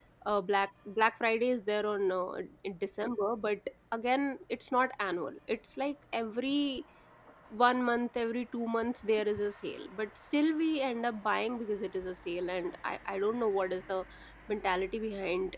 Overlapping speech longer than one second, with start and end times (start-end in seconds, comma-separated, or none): none